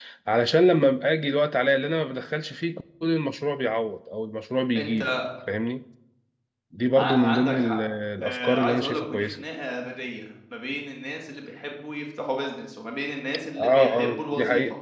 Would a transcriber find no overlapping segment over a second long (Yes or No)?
No